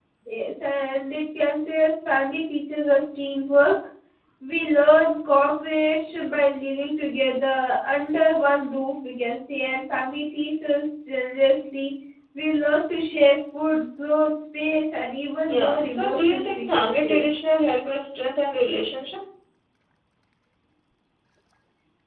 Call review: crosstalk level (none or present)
present